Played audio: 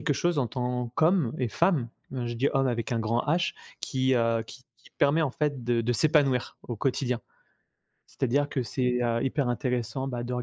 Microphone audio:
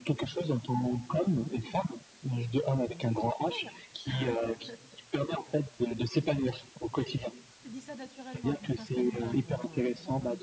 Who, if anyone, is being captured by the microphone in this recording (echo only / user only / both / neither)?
both